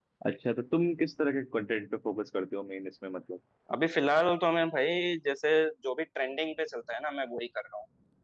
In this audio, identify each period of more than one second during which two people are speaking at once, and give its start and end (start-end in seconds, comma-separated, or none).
none